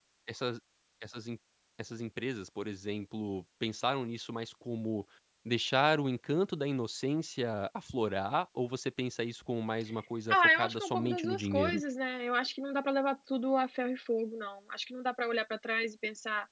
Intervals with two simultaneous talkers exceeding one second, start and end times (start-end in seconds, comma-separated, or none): 10.3-11.8